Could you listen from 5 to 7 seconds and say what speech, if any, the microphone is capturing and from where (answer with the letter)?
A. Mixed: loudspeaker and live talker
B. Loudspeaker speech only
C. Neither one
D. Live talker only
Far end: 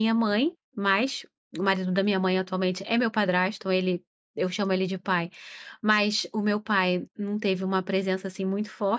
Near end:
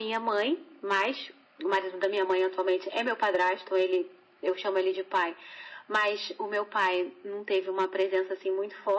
B